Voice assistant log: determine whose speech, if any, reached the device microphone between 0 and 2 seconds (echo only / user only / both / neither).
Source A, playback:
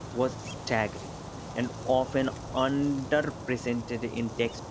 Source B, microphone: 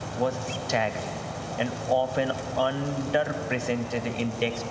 echo only